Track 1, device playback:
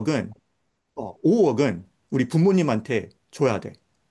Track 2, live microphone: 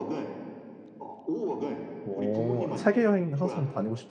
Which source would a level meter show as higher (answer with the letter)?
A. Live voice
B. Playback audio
A